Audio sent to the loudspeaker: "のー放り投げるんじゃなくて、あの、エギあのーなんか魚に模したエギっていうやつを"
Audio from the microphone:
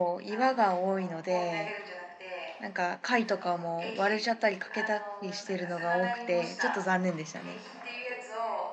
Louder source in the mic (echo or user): user